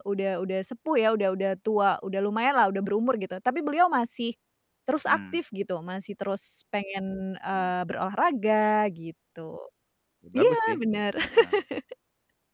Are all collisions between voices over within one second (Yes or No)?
Yes